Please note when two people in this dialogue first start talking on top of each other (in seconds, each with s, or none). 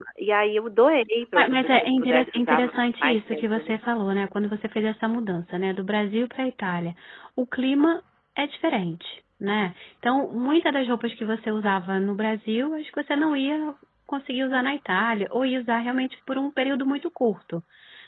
1.4 s